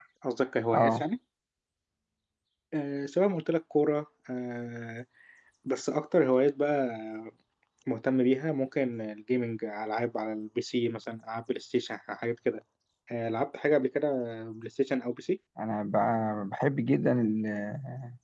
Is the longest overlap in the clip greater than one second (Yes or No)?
No